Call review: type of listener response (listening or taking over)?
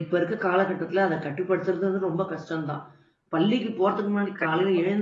listening